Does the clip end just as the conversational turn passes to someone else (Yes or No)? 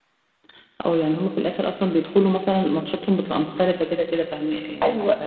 Yes